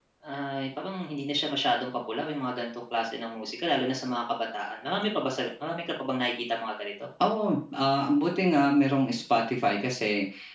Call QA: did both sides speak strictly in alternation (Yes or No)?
Yes